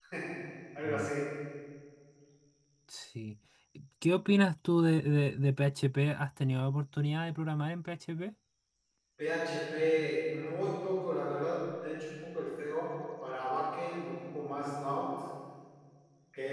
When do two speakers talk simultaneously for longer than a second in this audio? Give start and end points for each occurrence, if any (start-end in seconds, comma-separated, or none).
none